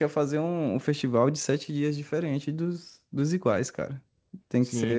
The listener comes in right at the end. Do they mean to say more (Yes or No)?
Yes